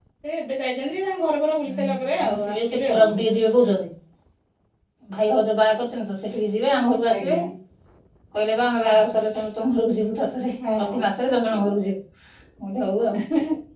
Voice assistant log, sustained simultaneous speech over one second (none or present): present